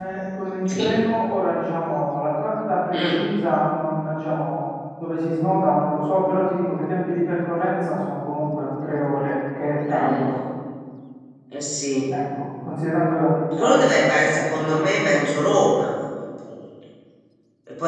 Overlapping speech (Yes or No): Yes